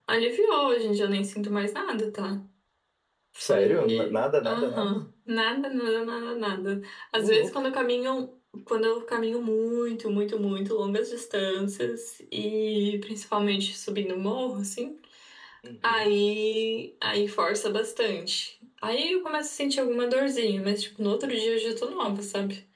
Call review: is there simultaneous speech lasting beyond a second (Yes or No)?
Yes